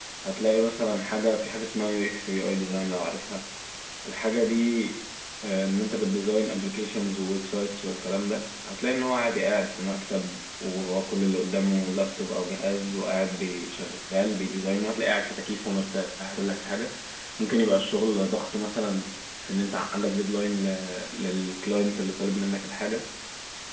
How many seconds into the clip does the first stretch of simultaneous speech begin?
none

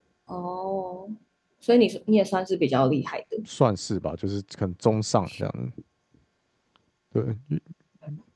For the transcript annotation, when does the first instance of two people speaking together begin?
none

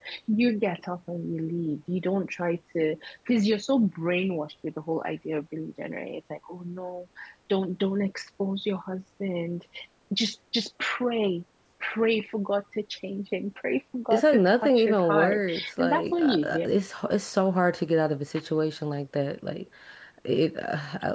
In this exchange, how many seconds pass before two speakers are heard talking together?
14.1 s

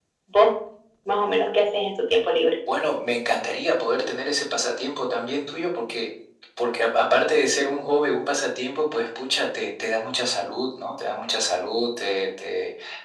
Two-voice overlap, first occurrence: none

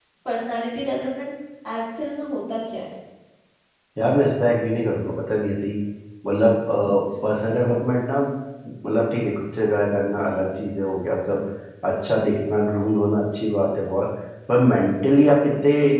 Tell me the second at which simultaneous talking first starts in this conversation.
none

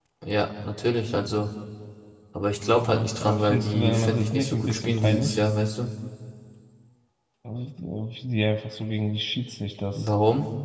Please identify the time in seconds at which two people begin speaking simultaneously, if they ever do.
2.8 s

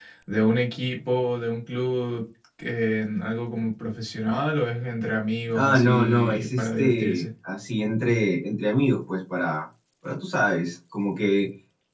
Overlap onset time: 5.5 s

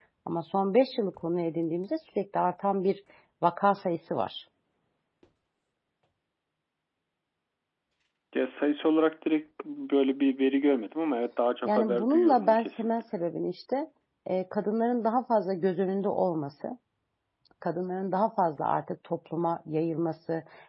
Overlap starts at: 11.7 s

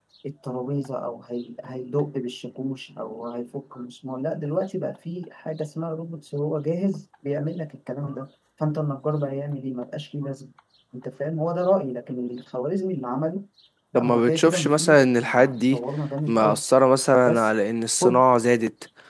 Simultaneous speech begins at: 13.9 s

